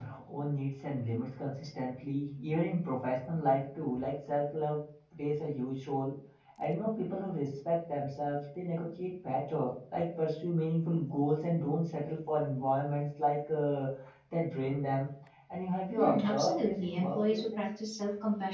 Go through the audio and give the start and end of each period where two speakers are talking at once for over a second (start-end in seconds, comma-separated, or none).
16.0-17.6